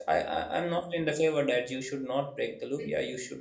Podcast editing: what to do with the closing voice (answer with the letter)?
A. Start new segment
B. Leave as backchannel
B